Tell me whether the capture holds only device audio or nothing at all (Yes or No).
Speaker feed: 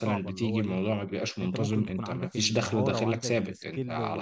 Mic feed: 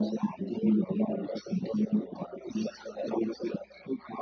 Yes